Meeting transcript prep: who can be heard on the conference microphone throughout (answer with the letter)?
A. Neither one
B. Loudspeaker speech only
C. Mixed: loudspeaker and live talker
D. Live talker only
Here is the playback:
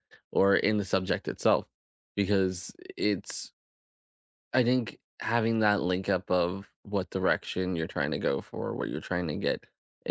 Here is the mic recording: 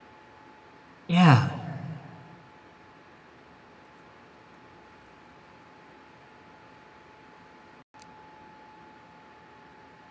D